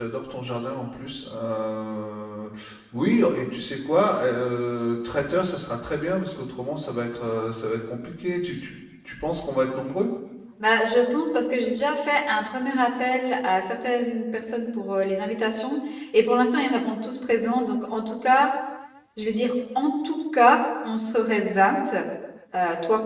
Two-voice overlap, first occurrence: none

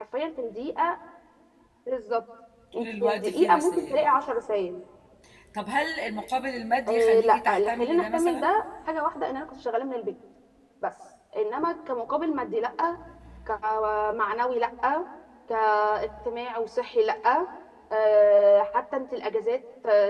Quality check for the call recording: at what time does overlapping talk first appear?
2.8 s

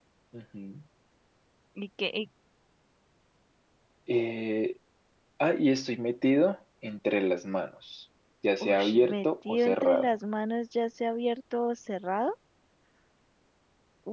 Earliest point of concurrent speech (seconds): 8.6 s

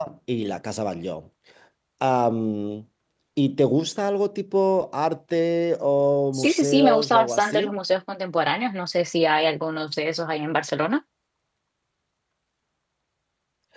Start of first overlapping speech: 6.3 s

